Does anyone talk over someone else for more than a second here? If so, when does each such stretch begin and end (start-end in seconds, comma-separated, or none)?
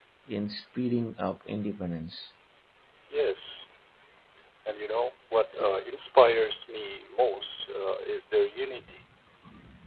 none